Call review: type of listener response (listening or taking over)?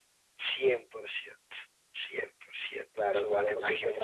taking over